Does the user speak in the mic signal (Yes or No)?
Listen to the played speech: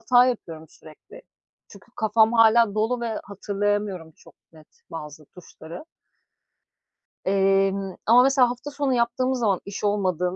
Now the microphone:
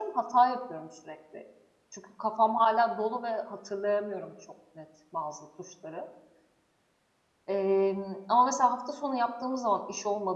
No